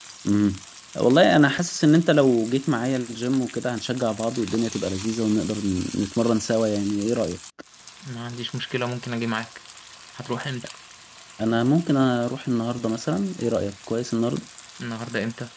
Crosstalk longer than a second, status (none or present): none